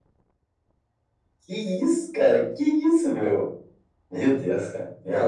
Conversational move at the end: taking over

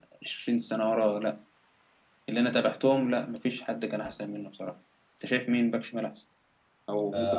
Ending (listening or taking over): taking over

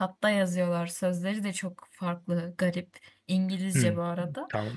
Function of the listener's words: taking over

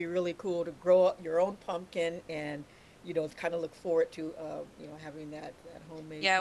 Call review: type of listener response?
taking over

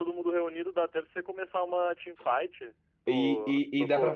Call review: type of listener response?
taking over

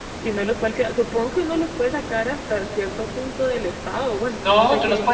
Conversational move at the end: taking over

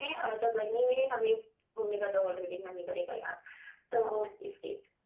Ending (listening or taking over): listening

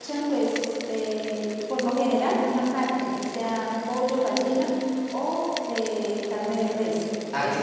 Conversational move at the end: taking over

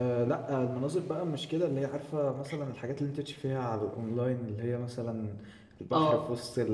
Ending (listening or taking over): listening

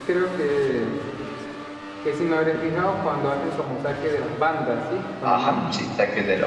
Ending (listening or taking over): taking over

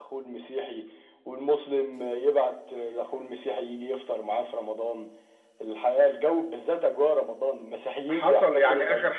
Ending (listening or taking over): taking over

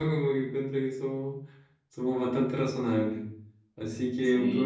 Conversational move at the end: taking over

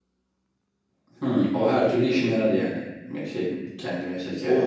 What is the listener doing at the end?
taking over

